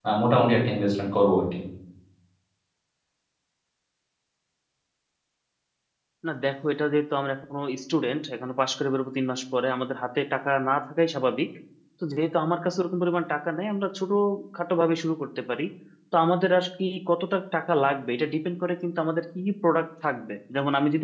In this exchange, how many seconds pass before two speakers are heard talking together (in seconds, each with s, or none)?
none